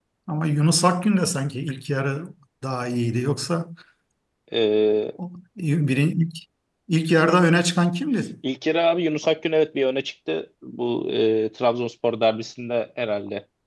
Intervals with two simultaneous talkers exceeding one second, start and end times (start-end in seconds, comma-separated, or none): none